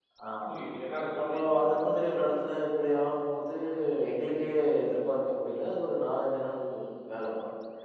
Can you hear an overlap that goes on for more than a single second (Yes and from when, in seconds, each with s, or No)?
Yes, from 1.2 s